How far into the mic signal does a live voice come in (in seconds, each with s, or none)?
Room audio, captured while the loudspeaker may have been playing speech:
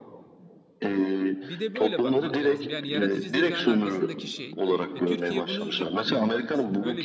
1.4 s